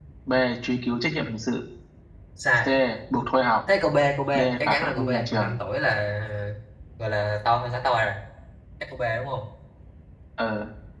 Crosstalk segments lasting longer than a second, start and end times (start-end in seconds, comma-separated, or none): 4.3-5.5